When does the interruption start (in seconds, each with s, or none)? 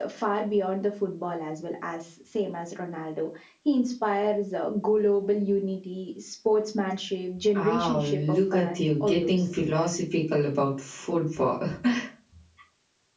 7.5 s